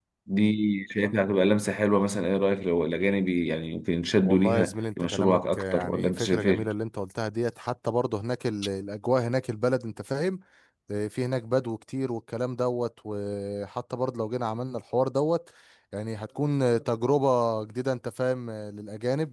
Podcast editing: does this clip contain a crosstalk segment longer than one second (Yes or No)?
Yes